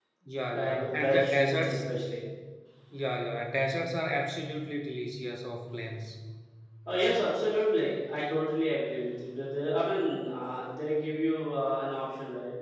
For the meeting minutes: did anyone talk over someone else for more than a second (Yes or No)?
Yes